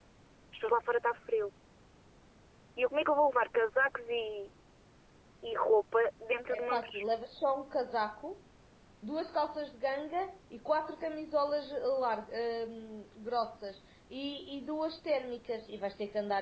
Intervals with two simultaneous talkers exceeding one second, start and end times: none

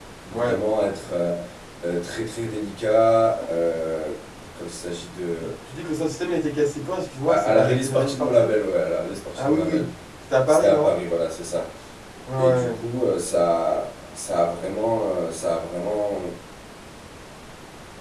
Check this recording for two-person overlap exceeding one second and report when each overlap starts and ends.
7.3-8.5

